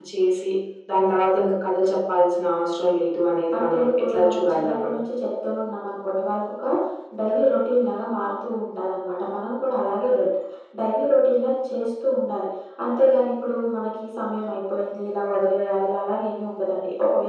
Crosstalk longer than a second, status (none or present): present